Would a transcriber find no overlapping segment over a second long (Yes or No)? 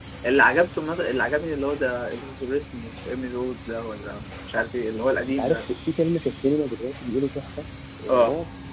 Yes